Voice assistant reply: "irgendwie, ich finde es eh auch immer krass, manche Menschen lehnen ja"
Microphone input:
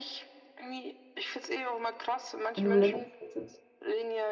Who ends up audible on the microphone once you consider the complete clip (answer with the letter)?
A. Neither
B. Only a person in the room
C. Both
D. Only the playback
C